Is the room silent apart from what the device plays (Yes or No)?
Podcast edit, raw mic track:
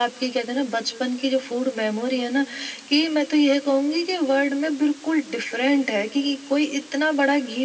Yes